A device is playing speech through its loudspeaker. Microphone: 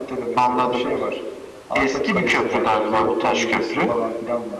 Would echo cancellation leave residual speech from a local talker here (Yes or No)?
No